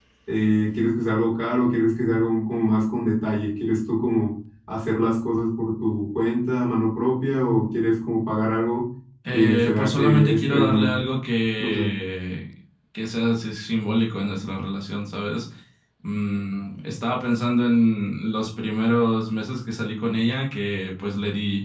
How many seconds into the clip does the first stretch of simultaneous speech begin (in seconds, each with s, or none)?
9.3 s